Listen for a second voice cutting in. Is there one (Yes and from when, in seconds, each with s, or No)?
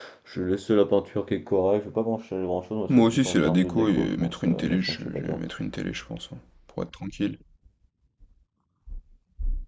Yes, from 2.9 s